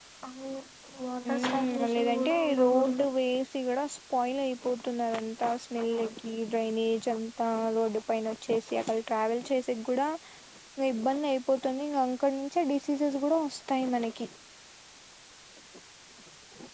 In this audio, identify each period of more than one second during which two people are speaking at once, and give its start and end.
1.3-3.1

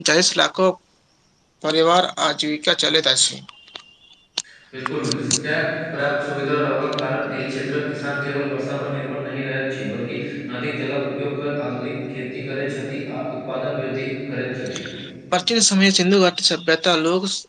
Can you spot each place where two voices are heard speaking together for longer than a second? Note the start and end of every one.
none

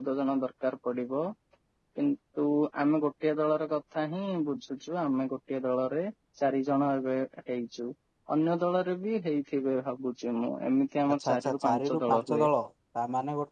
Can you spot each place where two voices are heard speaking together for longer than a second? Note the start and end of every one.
11.1-12.5

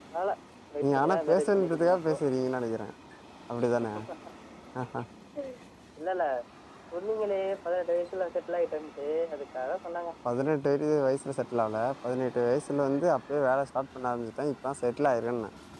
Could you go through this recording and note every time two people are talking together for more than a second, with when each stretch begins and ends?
0.8-2.1

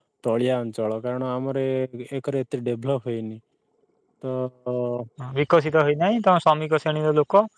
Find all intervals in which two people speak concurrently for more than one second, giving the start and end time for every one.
none

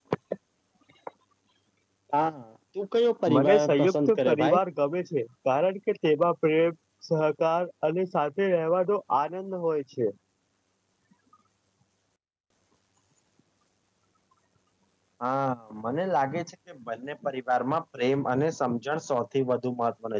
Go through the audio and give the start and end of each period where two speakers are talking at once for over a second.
3.4-4.6

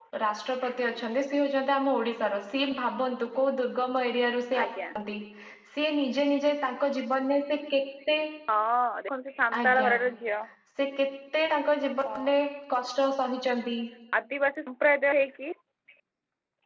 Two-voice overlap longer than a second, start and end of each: none

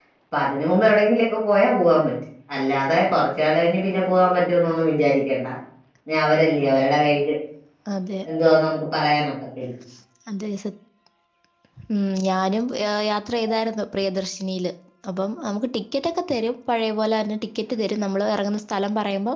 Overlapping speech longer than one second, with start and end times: none

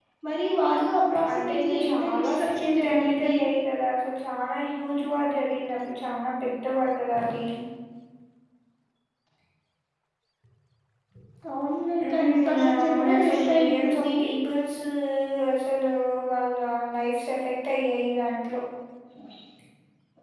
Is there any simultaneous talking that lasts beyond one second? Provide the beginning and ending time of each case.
1.3-3.3, 12.0-14.1

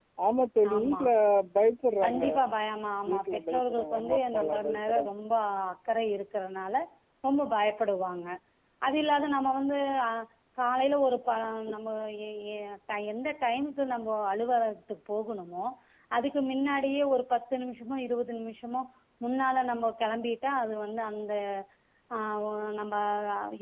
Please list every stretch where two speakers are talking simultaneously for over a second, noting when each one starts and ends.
3.1-5.1

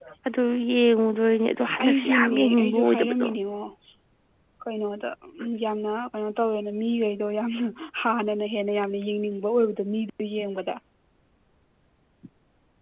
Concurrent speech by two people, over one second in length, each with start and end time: 1.8-3.3

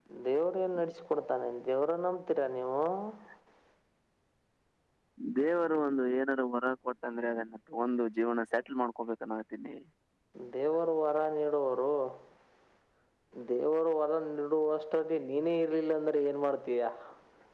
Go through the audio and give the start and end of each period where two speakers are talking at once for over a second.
none

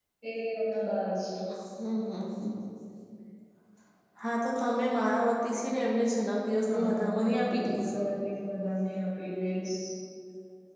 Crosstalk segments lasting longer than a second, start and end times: 6.7-8.0

